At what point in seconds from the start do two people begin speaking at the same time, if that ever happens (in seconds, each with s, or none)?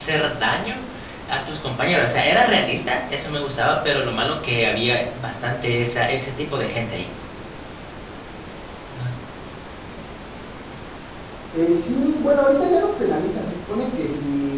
none